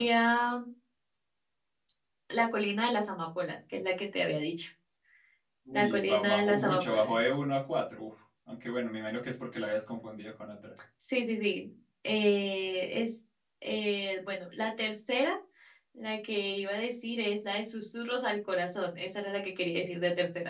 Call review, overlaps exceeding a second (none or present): present